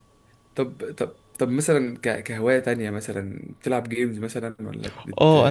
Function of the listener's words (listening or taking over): taking over